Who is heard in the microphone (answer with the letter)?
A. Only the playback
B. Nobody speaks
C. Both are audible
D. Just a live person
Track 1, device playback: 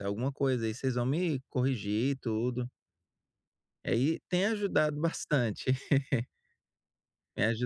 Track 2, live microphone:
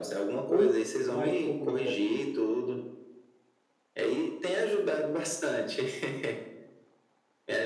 C